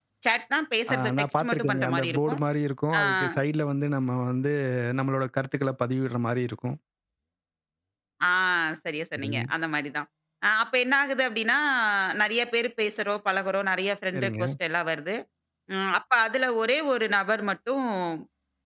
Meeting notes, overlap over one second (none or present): present